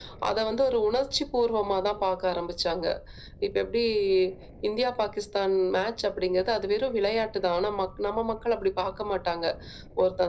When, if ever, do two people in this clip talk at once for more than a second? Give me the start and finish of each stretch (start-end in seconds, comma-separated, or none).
none